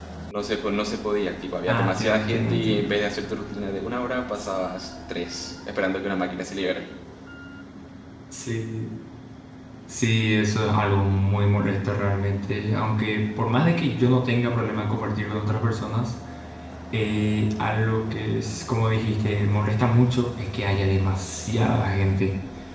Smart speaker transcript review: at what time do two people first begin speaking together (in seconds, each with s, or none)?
1.7 s